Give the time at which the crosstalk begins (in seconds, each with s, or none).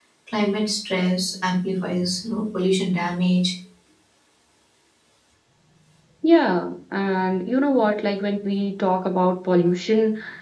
none